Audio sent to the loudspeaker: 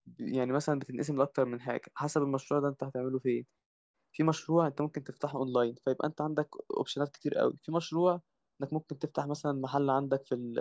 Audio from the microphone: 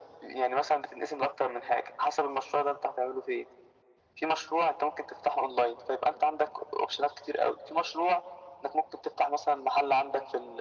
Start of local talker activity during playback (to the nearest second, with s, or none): none